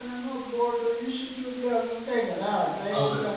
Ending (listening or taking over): listening